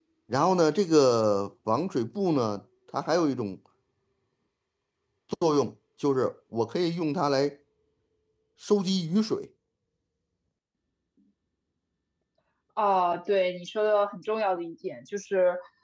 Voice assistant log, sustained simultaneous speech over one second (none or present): none